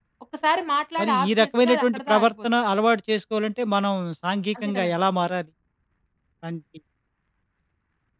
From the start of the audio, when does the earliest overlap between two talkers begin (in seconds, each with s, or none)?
1.0 s